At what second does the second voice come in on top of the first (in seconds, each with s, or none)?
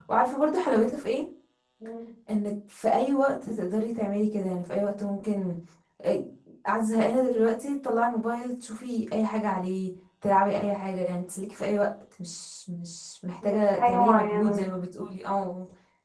13.4 s